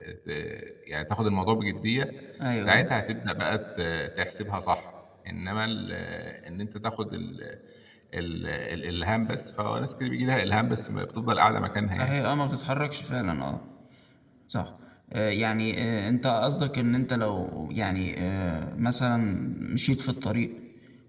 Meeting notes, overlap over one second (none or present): none